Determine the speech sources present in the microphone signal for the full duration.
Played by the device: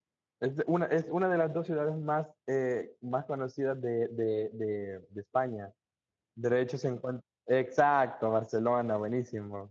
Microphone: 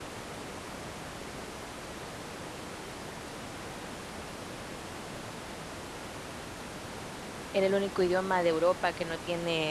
user only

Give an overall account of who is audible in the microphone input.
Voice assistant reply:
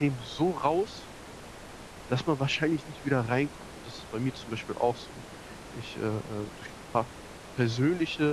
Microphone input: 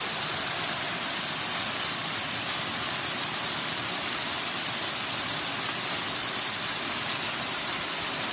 neither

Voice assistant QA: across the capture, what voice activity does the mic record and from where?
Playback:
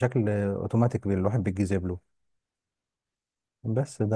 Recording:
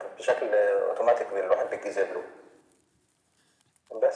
echo only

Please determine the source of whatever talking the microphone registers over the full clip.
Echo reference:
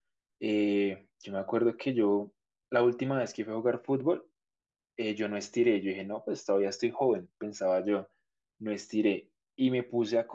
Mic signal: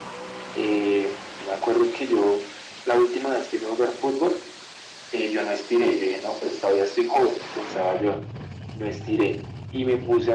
echo only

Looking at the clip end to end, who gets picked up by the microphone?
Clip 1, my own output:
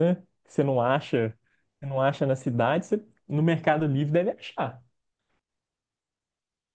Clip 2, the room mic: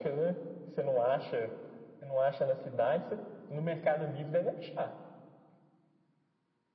echo only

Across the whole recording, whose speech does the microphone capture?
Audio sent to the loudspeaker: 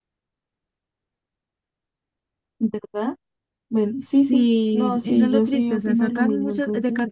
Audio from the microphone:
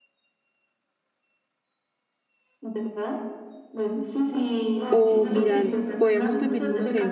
both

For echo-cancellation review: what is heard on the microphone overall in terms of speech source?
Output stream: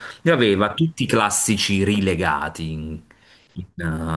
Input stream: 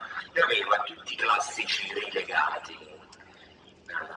echo only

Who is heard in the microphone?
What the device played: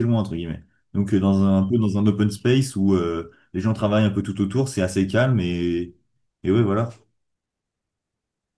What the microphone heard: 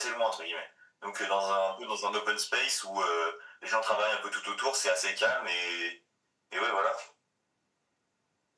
echo only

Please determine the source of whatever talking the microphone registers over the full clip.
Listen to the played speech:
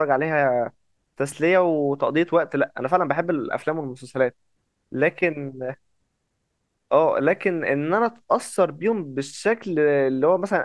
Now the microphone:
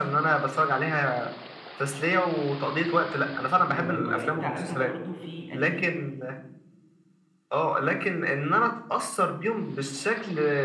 both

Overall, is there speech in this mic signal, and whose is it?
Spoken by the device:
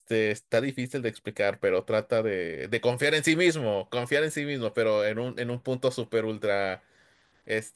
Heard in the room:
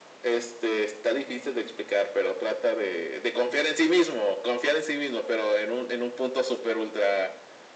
echo only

